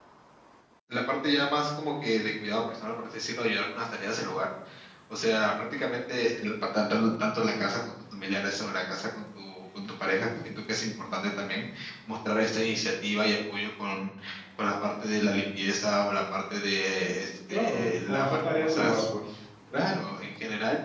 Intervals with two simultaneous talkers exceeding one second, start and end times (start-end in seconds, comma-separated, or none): 17.5-19.1